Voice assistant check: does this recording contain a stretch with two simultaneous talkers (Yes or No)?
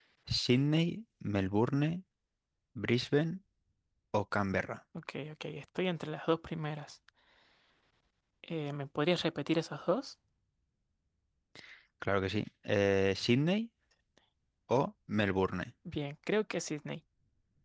No